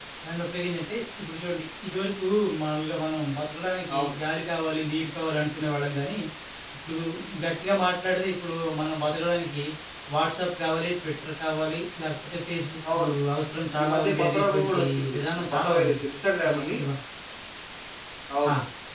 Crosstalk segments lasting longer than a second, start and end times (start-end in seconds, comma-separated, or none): 13.8-15.9